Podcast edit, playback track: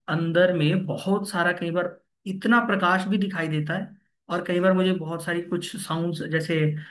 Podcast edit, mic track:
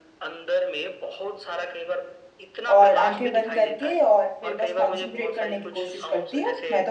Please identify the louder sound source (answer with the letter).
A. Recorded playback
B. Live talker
B